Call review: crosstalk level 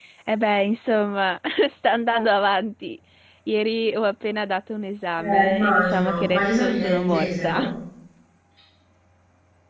present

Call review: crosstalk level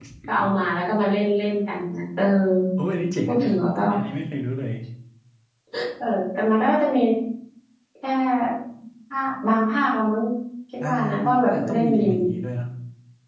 present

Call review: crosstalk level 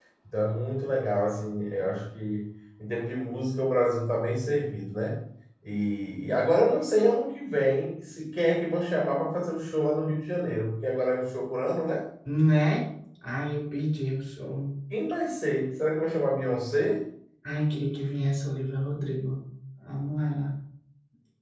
none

